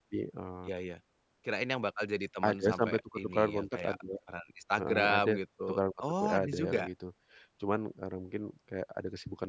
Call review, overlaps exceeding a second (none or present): present